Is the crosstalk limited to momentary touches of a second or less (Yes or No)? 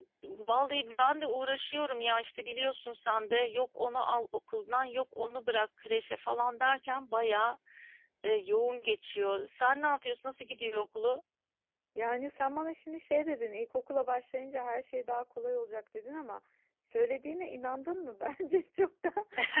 Yes